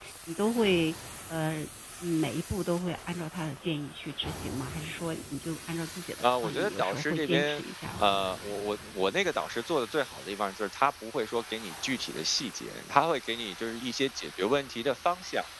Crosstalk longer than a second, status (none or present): present